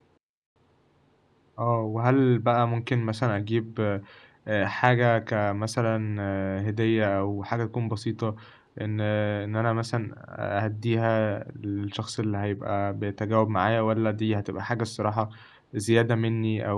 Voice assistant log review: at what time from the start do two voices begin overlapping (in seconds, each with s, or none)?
none